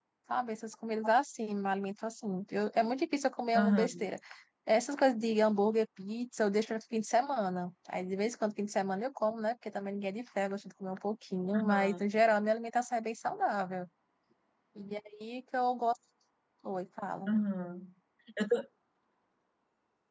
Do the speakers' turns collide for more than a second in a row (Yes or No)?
No